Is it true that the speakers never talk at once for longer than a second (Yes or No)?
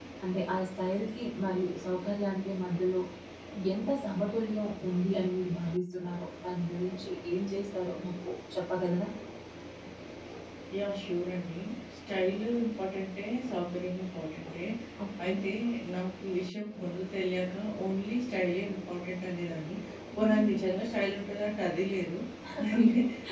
Yes